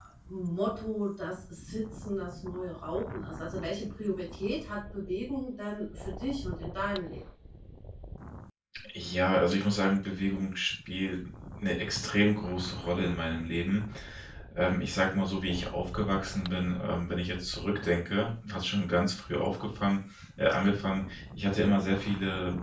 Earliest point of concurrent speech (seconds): none

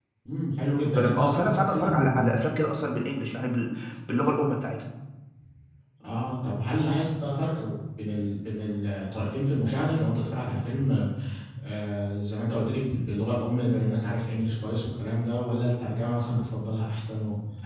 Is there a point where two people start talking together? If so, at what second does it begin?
0.8 s

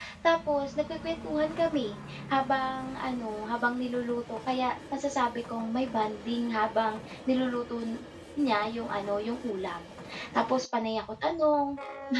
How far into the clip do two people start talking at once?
none

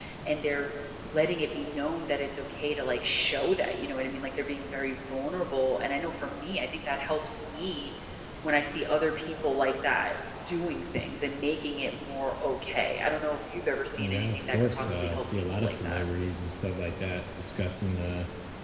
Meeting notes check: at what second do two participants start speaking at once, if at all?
14.0 s

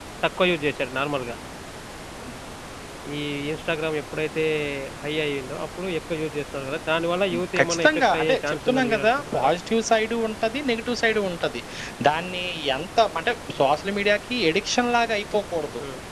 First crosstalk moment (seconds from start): 7.6 s

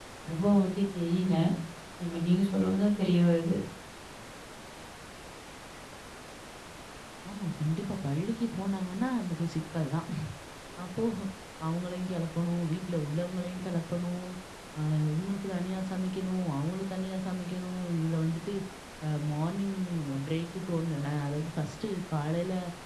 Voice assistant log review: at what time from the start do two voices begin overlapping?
none

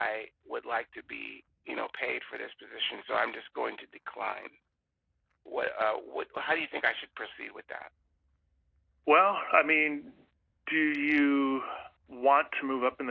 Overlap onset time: none

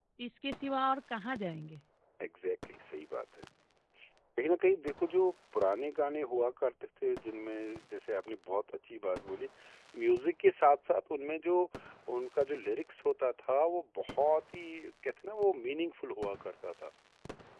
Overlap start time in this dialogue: none

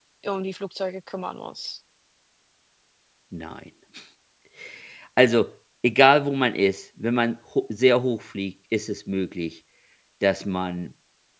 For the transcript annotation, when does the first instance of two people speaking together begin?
none

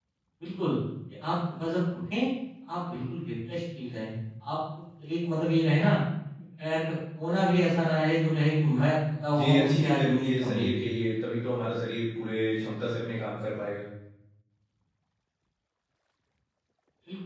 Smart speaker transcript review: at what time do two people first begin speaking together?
9.3 s

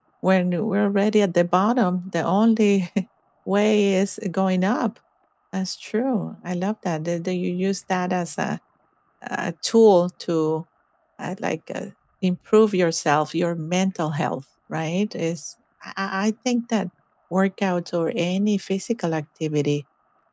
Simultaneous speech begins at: none

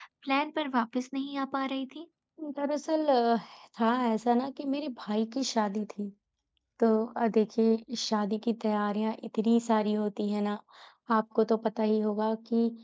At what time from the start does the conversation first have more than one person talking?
none

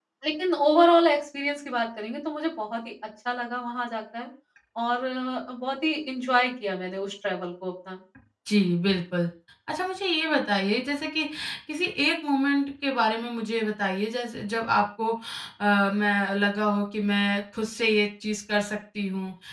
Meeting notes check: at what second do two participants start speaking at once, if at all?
none

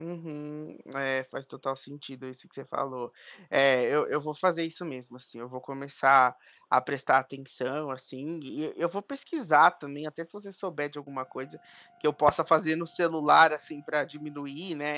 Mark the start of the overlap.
none

